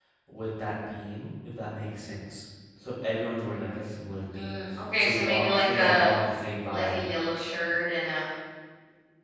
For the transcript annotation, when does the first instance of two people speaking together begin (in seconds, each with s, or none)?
4.3 s